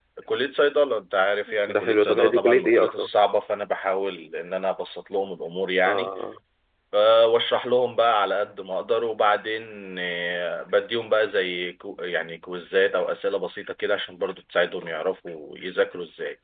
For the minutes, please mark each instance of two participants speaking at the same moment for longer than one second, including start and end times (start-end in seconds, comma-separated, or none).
1.7-3.1